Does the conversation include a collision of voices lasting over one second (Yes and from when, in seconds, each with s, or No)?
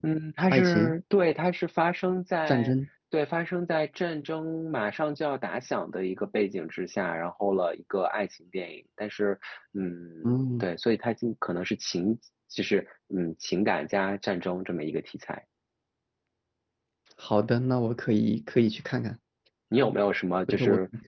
No